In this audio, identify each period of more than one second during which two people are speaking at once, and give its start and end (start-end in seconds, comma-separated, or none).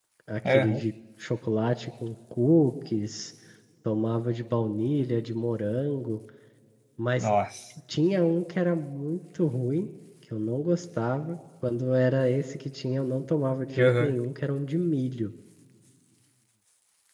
none